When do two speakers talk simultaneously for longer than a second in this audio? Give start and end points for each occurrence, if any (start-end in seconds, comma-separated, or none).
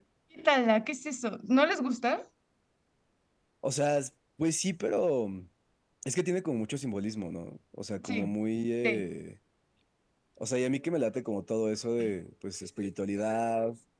none